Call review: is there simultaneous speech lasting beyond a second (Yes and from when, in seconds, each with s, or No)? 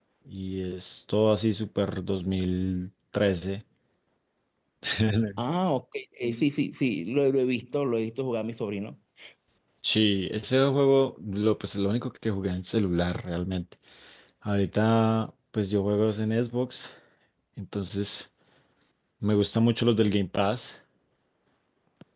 No